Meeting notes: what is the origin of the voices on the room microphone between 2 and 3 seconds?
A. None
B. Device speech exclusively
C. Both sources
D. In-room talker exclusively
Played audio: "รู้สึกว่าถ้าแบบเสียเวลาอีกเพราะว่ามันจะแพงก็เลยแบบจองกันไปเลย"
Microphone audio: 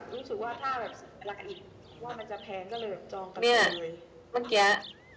B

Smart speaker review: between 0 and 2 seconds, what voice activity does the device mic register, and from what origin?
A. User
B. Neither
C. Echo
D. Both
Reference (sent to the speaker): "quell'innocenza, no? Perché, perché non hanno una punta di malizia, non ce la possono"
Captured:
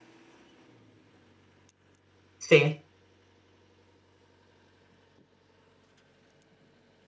B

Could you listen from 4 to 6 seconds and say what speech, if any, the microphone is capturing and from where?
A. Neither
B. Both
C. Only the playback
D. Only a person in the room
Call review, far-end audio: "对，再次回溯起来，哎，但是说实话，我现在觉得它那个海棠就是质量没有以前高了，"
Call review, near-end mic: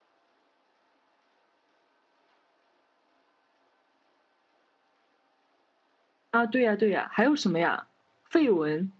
A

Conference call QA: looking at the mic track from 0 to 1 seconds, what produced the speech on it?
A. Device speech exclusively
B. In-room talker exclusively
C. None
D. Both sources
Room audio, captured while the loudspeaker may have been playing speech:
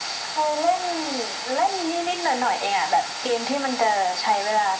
A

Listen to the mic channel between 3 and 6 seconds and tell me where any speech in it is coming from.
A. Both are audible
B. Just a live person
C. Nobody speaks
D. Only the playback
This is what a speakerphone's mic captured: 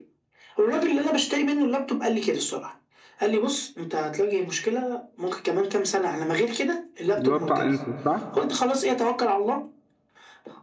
D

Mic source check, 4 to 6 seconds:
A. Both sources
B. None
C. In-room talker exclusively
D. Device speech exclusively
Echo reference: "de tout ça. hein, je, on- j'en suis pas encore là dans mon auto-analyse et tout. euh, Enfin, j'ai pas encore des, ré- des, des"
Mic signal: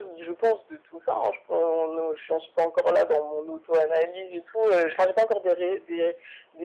D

